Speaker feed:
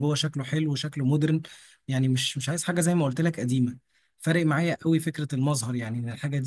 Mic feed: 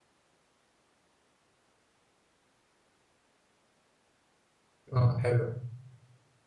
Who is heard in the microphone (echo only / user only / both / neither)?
user only